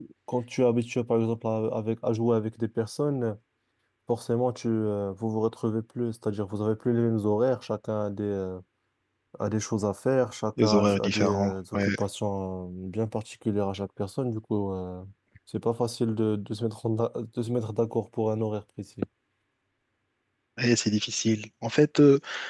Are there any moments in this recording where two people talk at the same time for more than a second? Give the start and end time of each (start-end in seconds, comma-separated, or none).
10.6-11.9